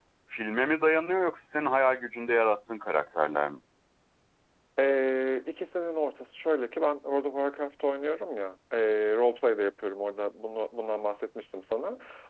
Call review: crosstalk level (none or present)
none